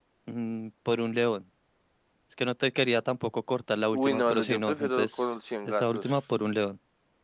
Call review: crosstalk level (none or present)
present